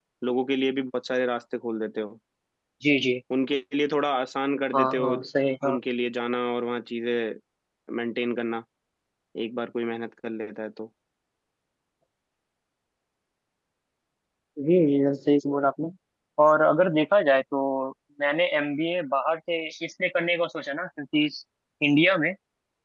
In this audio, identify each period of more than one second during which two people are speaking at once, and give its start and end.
none

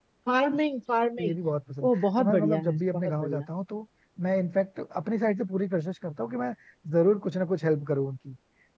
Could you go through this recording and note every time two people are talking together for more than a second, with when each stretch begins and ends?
1.9-3.5

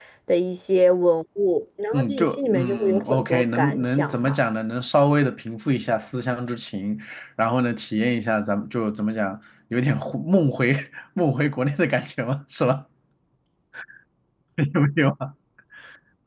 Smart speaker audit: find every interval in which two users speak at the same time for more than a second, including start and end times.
1.9-4.4

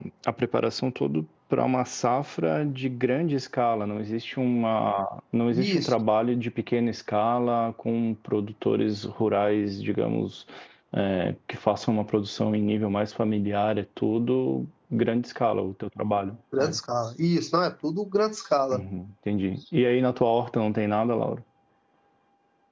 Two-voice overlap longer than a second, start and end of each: none

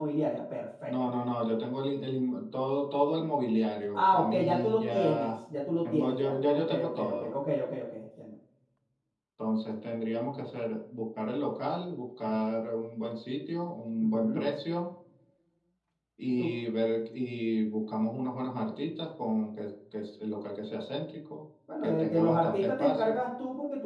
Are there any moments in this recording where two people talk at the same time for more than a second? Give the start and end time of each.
3.9-5.4, 5.9-7.3, 21.8-23.2

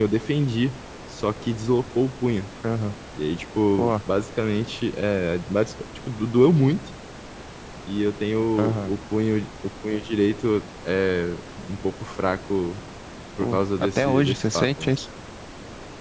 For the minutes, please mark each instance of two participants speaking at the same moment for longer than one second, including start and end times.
13.4-14.9

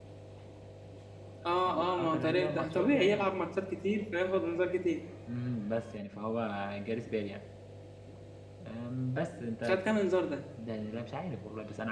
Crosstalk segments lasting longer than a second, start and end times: 1.5-3.4

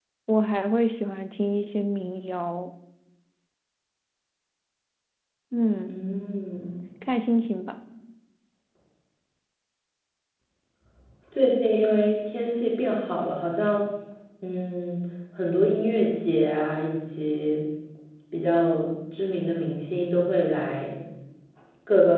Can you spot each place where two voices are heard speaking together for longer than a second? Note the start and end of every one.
none

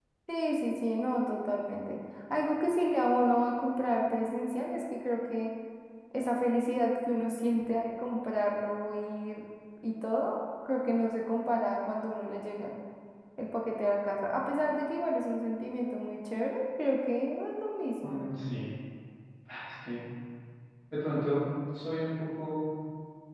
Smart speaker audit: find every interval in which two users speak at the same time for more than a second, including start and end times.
none

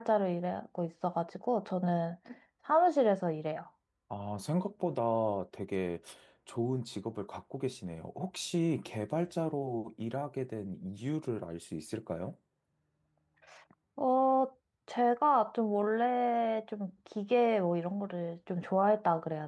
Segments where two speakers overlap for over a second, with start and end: none

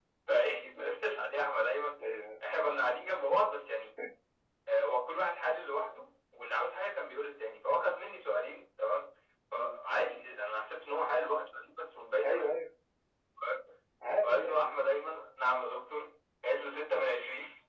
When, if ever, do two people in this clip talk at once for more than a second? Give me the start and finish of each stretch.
none

